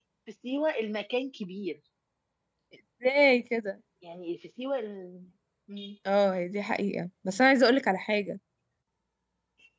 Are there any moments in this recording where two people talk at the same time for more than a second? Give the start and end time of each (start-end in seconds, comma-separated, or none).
none